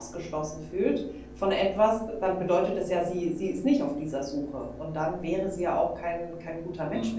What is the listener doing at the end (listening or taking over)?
taking over